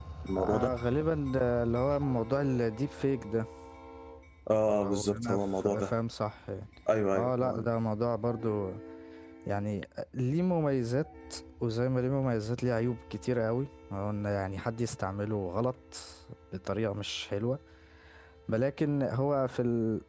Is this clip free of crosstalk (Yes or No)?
No